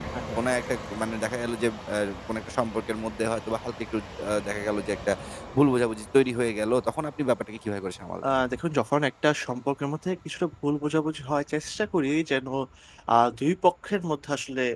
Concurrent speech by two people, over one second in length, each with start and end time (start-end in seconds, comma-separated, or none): none